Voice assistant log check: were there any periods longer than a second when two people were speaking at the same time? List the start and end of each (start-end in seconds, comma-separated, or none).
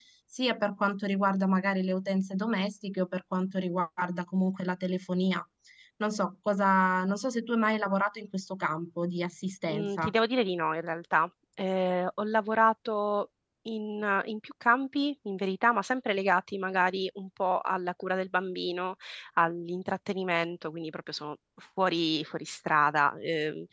none